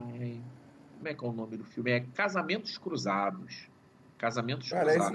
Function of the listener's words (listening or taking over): taking over